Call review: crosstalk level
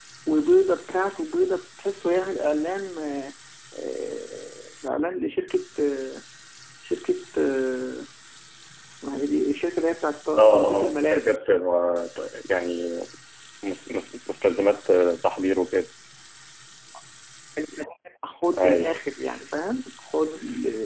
present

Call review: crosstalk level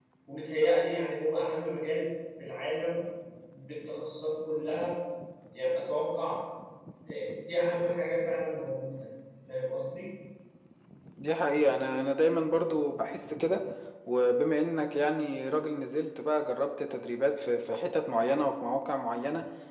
none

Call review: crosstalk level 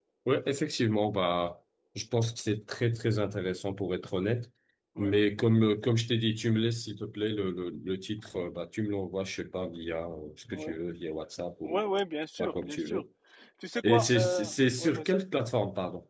present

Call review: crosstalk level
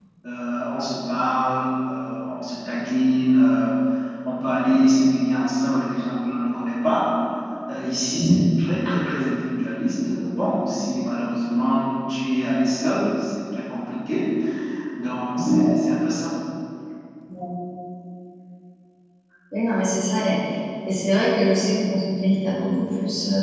none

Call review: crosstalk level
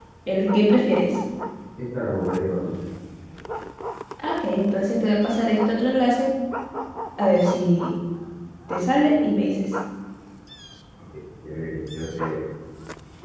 none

